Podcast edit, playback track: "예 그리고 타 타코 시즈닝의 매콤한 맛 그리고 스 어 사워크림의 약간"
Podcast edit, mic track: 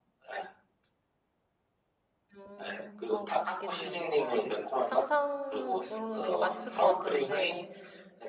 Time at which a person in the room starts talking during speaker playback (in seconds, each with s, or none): 2.4 s